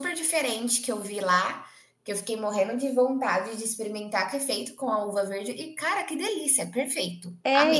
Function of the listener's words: taking over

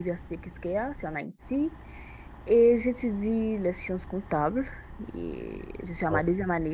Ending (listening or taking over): listening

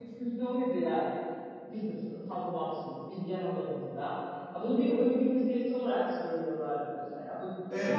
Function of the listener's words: taking over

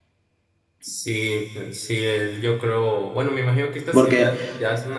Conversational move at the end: listening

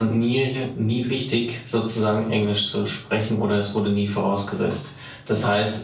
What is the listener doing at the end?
listening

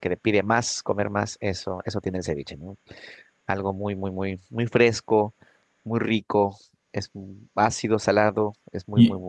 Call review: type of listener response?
taking over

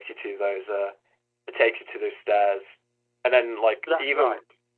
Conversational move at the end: listening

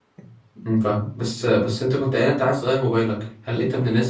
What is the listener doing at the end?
listening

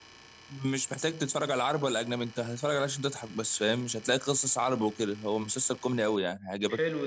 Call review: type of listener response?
taking over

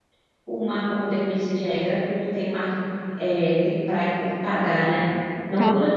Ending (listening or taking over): listening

